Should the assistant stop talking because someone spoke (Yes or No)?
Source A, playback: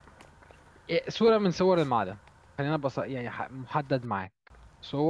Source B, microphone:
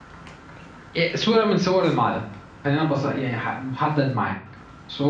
No